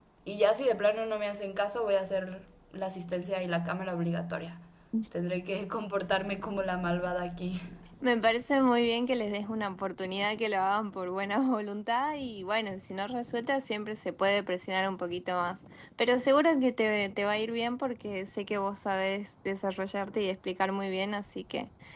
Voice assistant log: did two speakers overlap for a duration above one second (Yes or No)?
No